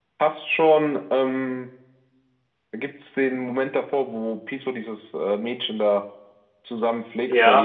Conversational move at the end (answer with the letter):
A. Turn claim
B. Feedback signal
B